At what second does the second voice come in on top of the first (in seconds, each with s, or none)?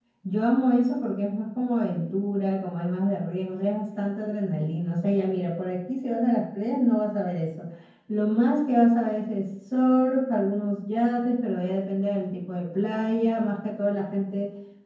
none